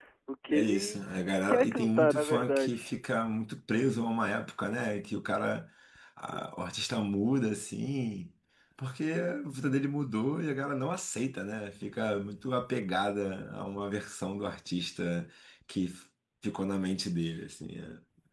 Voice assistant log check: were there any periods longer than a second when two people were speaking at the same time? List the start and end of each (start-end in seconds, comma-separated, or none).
1.5-2.9